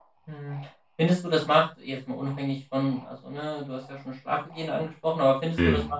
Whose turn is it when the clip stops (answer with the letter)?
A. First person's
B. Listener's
A